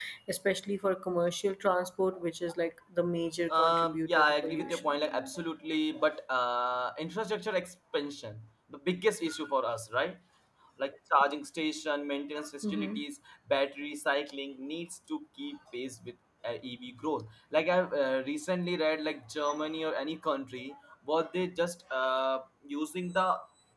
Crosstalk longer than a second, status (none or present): present